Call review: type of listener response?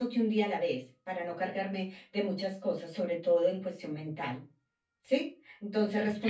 listening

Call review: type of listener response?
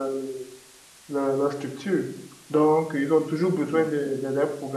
listening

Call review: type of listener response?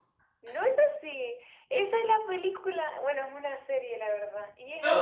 listening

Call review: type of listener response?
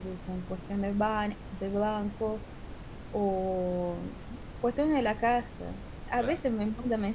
listening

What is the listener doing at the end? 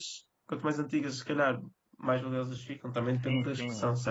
taking over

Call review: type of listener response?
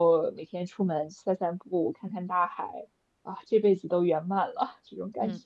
taking over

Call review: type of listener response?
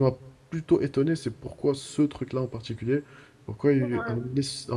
listening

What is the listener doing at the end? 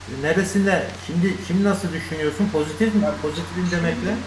taking over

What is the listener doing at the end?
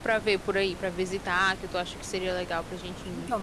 taking over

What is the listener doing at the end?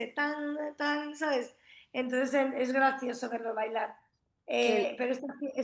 listening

